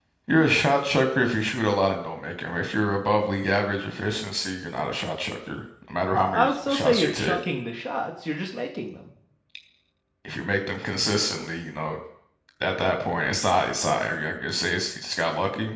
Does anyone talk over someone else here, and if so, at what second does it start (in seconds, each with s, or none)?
6.1 s